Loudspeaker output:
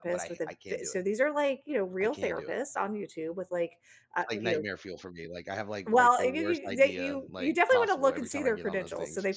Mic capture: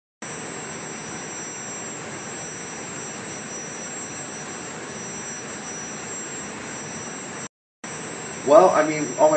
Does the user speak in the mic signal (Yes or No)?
Yes